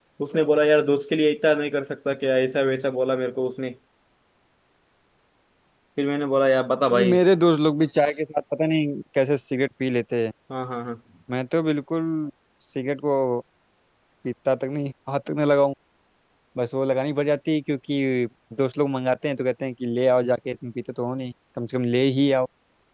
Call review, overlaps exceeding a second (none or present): none